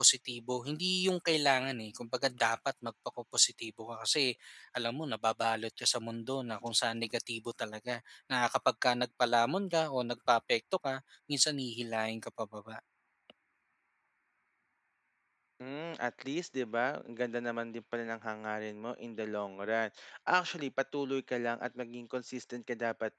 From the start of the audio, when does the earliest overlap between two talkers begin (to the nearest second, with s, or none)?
none